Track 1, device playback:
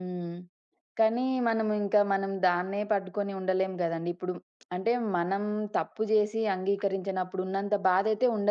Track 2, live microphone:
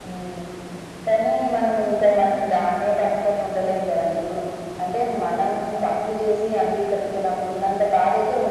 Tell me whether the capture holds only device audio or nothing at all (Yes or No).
Yes